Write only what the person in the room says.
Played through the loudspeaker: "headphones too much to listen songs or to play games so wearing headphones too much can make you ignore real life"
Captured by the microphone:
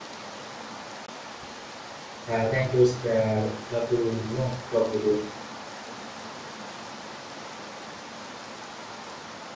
yeah thank you it's, uh, love to you know talk with you

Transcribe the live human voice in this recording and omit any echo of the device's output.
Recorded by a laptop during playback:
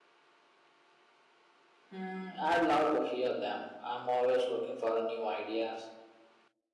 Hmm, I'd love to hear them. I'm always looking for uh, new ideas.

